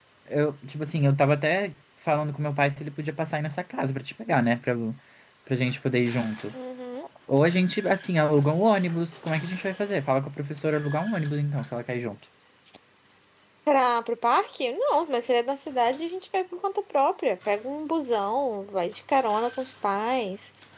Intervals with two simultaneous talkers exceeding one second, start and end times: none

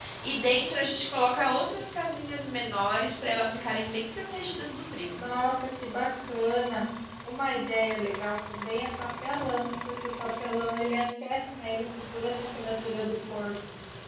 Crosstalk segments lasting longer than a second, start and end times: none

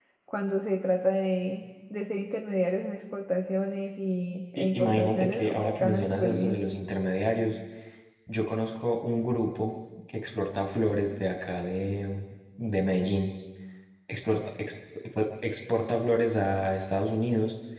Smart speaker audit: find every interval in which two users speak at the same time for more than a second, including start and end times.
4.5-6.6

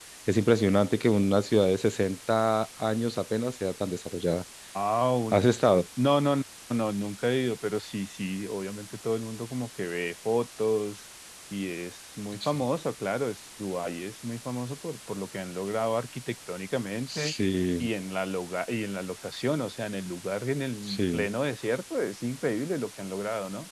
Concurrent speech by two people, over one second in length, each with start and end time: none

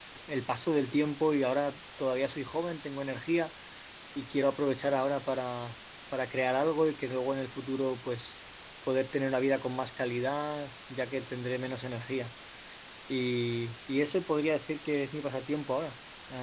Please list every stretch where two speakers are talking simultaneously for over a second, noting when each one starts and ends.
none

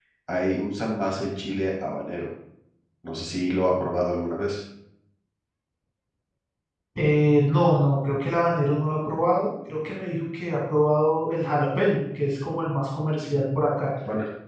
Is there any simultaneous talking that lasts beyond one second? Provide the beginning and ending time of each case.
none

